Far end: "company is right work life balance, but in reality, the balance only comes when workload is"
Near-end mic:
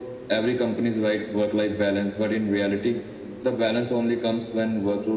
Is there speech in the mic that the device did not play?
No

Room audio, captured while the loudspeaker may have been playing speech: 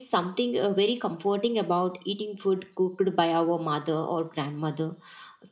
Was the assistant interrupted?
No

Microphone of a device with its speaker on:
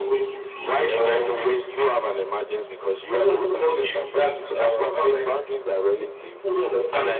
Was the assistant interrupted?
No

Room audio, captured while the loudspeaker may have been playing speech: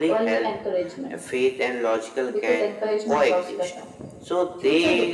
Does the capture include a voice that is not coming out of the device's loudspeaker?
No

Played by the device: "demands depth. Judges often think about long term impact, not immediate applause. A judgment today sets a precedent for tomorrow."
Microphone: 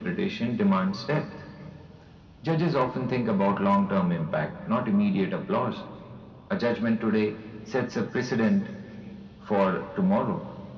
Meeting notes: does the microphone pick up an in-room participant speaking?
No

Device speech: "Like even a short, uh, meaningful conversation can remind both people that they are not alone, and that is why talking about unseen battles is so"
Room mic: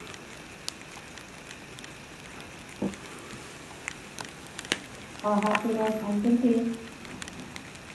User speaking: Yes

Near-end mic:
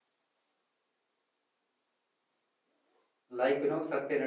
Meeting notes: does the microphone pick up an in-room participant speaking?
Yes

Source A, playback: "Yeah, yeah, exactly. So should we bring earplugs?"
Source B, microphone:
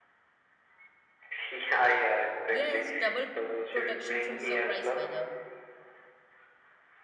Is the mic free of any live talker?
No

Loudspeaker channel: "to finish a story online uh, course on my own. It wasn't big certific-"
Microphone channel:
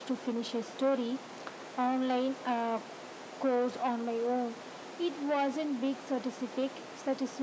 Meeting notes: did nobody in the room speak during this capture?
Yes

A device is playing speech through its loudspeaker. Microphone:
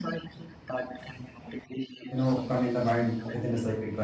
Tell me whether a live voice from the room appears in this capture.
Yes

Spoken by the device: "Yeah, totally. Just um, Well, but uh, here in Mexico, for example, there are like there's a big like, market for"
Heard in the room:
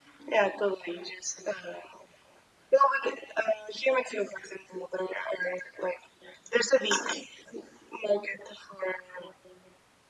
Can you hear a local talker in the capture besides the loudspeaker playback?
No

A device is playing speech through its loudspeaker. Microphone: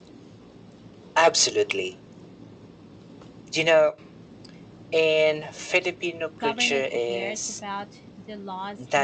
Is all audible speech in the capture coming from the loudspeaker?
No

